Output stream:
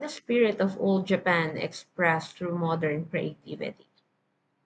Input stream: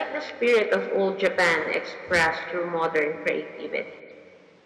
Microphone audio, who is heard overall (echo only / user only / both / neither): echo only